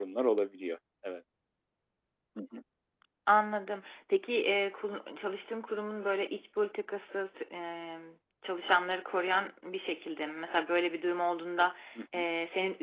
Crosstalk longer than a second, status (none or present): none